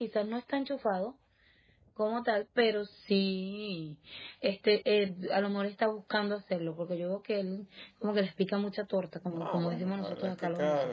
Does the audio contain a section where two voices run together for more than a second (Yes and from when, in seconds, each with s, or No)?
Yes, from 9.3 s